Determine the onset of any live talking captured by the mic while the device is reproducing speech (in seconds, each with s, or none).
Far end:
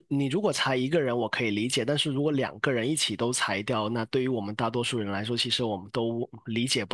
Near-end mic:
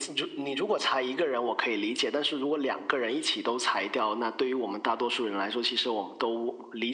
none